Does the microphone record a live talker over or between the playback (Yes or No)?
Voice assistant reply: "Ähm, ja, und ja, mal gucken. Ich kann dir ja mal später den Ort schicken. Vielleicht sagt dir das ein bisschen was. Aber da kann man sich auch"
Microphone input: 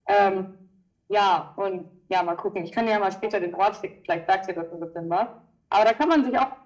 No